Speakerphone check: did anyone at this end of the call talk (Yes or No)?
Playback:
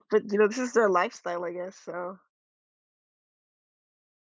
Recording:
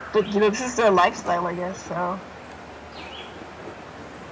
No